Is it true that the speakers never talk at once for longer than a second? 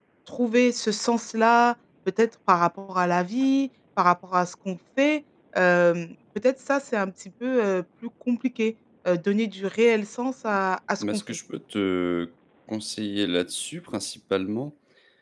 Yes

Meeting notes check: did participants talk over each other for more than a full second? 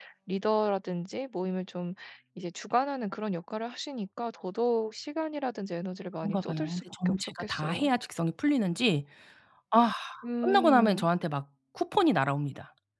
Yes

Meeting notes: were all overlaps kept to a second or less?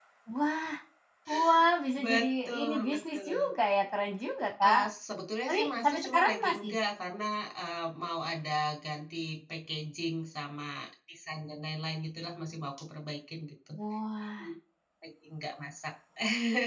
No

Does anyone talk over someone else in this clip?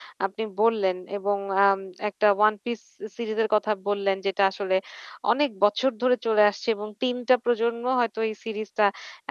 No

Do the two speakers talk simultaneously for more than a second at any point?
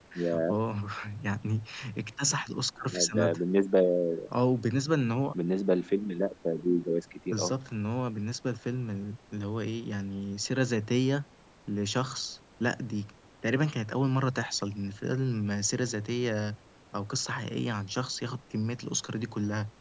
No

